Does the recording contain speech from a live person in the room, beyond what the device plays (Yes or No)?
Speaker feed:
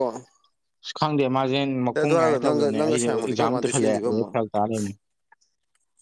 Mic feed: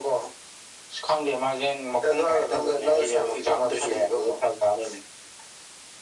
No